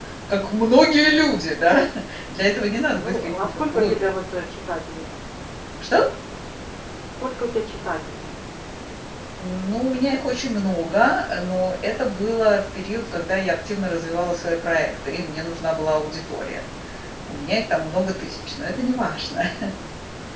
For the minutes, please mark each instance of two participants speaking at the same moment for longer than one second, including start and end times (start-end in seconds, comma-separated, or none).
2.9-4.1